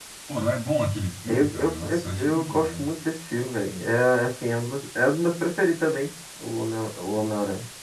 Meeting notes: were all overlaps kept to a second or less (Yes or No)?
No